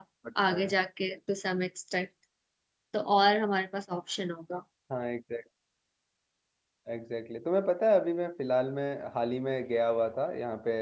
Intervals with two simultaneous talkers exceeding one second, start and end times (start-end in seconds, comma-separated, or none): none